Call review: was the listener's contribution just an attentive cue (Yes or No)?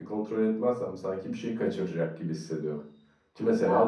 Yes